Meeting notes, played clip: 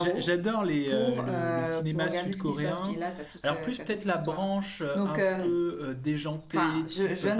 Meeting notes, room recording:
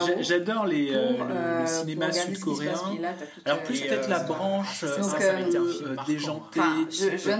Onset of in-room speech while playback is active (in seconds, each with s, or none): 3.6 s